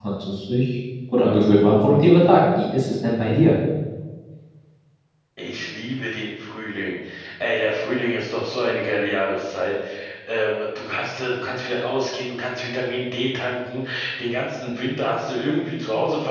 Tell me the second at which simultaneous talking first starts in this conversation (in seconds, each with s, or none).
none